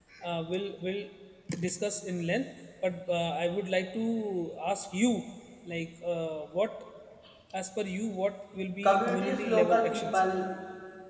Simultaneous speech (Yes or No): Yes